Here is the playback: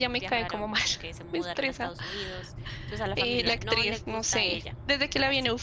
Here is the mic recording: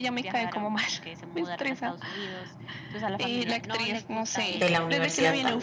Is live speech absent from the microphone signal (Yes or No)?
No